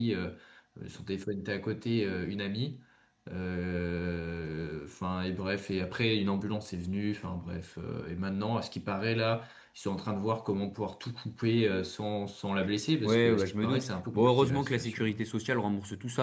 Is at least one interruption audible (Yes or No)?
Yes